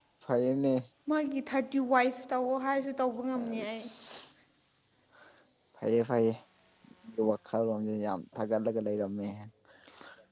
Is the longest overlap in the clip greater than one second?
No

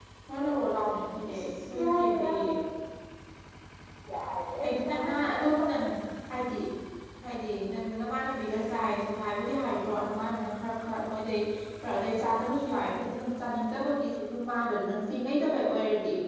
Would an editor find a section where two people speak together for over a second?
Yes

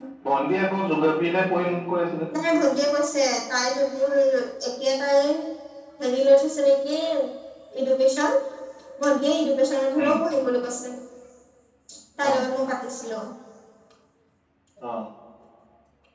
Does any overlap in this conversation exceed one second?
No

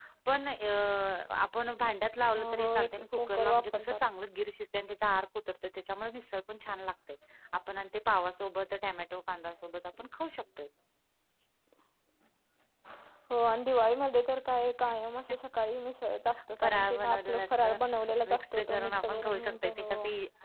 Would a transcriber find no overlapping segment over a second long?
No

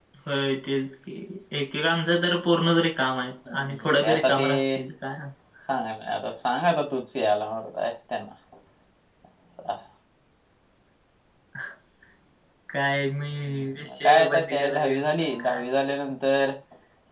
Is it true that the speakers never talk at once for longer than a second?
No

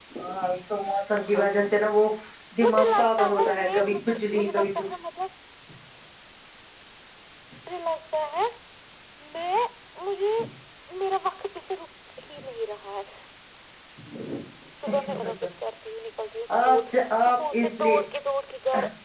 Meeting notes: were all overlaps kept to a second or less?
No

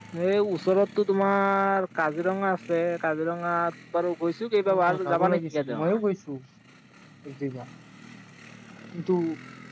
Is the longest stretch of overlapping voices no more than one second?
No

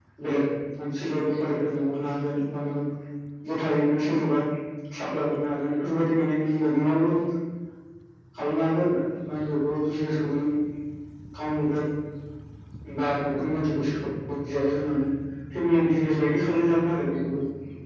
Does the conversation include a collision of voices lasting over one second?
No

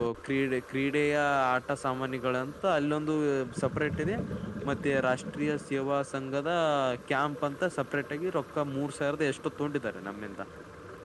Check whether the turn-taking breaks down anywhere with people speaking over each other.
No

